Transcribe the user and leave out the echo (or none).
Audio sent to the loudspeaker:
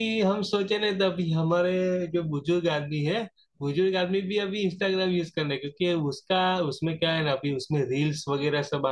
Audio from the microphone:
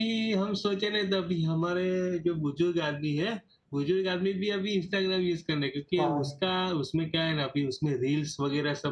हाँ